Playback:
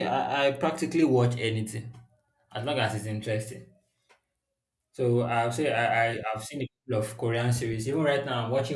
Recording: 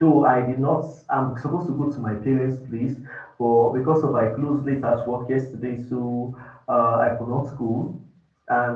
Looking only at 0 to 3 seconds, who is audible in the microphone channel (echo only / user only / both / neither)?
user only